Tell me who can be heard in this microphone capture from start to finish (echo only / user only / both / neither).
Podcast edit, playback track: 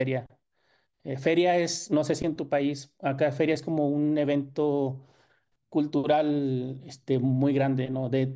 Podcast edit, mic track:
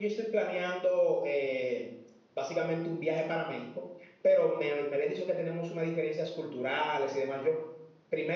user only